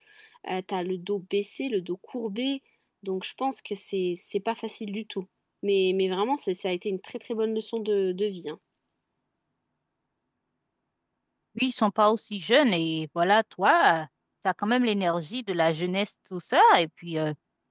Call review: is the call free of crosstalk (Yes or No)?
Yes